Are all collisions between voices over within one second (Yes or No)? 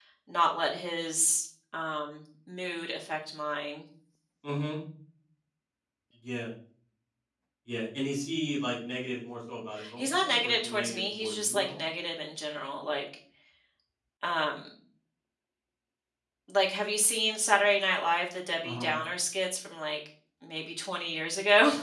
No